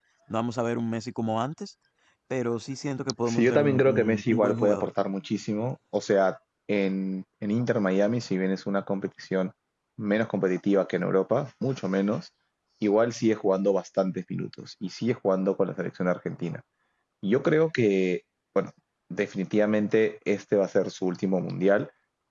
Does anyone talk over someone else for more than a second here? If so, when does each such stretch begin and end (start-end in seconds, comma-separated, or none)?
3.3-4.9